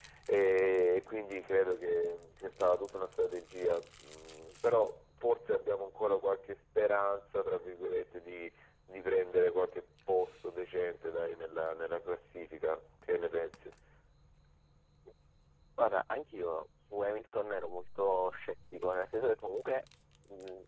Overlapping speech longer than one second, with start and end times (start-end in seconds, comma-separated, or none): none